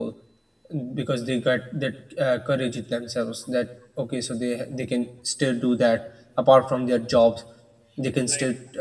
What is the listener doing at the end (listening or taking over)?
listening